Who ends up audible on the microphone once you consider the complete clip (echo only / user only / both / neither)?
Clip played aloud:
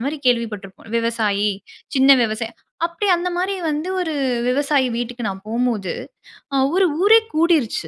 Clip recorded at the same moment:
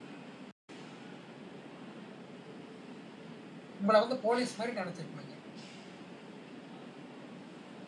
user only